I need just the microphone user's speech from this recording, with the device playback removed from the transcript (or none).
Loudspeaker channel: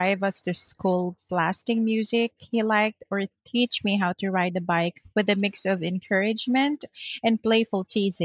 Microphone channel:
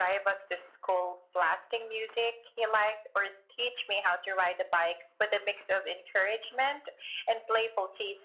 none